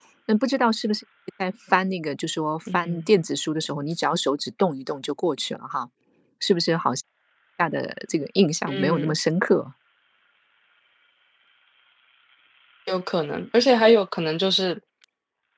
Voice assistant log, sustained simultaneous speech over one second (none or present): none